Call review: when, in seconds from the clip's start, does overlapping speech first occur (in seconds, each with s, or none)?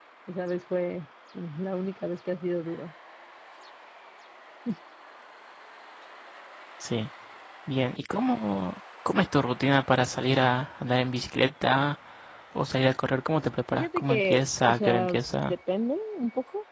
13.7 s